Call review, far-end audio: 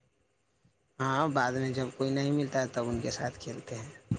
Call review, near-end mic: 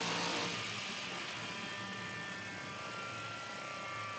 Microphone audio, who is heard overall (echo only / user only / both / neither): neither